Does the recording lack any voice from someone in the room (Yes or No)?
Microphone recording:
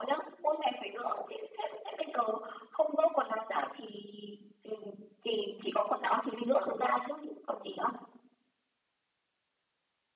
Yes